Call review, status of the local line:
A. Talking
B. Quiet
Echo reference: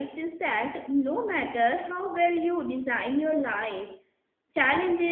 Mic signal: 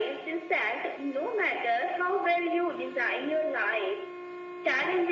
B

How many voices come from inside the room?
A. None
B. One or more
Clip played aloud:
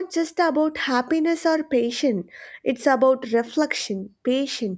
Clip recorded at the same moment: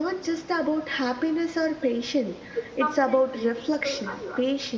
B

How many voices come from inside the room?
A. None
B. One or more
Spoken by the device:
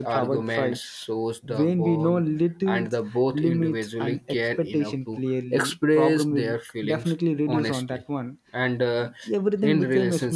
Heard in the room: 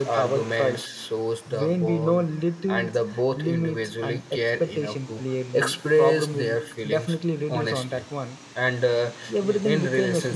B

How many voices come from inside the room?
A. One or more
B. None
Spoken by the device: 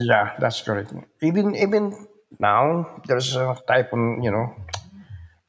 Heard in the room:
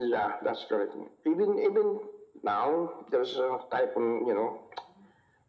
B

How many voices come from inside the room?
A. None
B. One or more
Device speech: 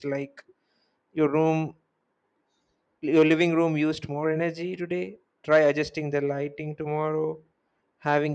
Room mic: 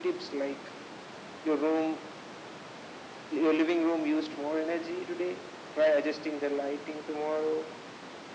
A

